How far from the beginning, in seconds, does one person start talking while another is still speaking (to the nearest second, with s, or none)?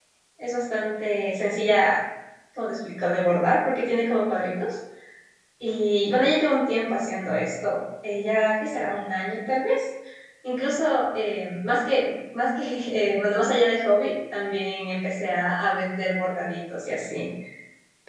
none